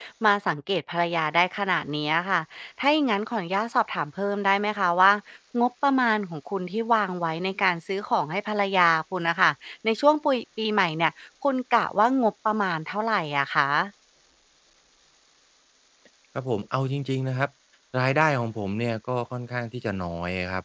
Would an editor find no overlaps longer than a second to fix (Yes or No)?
Yes